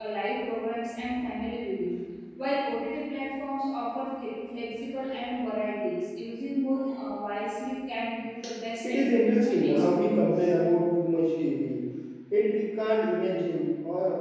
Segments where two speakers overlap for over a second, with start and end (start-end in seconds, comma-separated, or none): 8.9-10.3